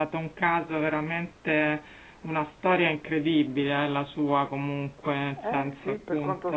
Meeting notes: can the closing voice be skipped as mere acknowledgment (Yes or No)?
No